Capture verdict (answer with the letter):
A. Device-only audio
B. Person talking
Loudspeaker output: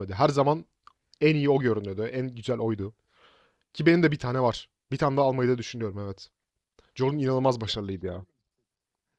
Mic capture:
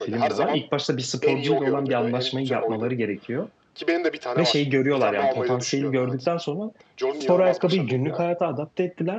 B